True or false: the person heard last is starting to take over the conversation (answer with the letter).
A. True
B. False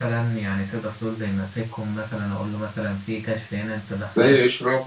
A